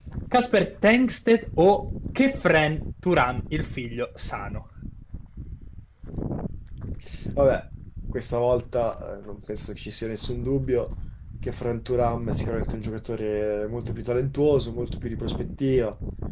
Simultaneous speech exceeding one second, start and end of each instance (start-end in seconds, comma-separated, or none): none